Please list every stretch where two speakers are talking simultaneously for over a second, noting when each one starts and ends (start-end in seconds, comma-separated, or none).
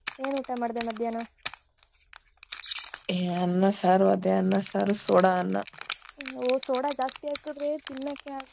none